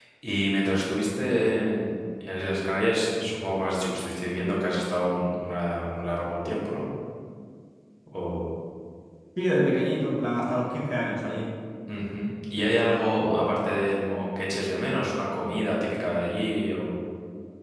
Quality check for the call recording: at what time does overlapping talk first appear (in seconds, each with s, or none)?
none